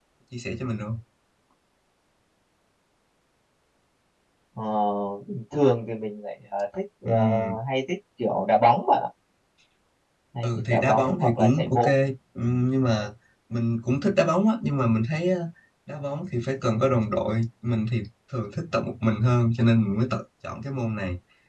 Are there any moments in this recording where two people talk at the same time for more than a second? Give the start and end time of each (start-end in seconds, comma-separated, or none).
10.4-11.9